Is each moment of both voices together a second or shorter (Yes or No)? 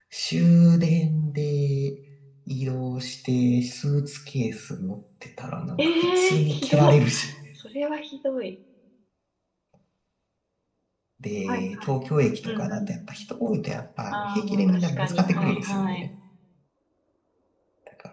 No